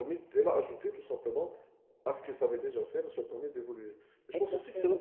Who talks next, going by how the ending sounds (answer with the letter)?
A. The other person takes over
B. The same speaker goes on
B